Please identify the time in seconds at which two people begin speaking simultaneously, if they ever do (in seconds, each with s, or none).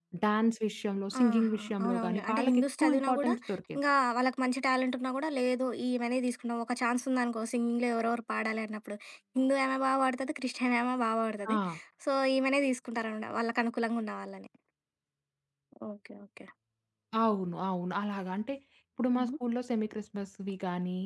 1.2 s